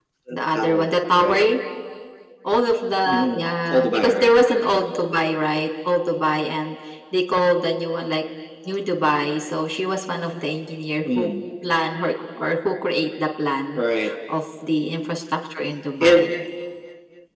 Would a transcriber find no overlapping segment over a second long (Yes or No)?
No